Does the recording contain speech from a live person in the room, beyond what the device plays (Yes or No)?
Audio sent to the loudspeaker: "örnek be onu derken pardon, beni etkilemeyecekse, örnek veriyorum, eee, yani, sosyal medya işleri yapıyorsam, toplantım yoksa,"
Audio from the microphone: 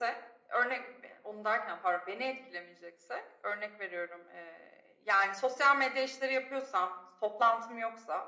No